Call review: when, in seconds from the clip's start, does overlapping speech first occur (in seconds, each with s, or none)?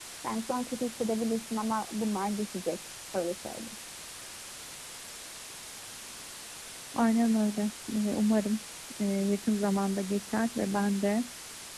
none